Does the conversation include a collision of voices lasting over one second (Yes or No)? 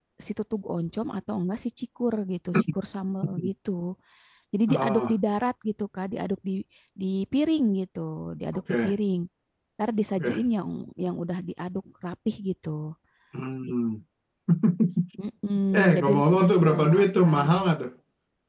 Yes